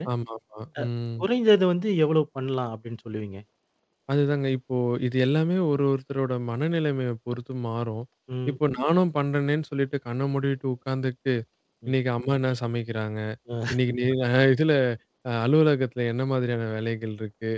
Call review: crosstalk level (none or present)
none